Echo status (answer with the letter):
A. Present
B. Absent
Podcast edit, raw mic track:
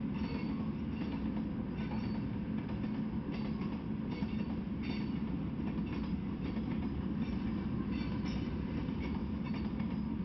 B